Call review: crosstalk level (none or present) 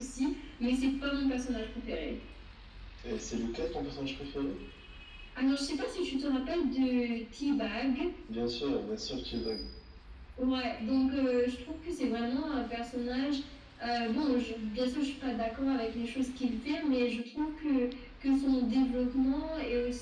none